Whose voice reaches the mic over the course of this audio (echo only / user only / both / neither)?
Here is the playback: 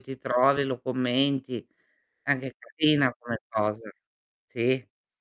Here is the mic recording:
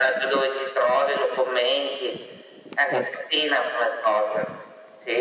both